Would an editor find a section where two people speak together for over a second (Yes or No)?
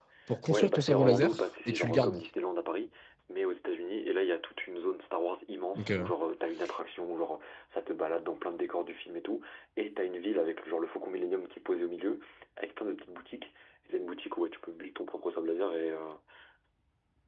Yes